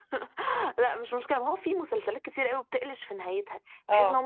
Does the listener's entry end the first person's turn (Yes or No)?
No